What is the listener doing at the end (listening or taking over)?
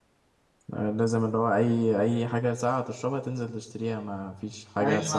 taking over